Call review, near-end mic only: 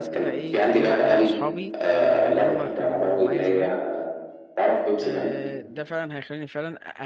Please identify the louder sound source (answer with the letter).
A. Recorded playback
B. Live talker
A